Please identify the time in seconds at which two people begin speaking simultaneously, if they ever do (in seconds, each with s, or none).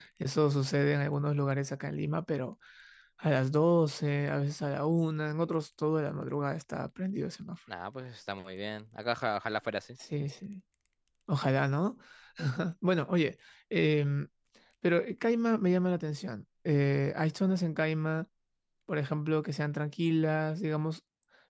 none